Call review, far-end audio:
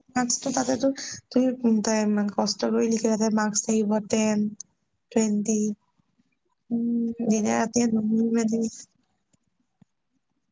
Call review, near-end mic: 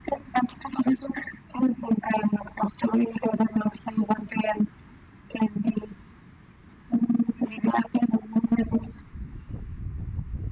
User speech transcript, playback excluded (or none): none